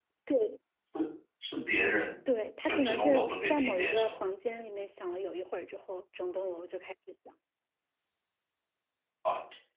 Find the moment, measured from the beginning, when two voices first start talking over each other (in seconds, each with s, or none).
2.6 s